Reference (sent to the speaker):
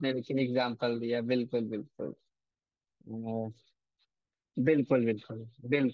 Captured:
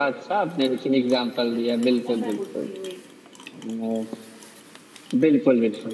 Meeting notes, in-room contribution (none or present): present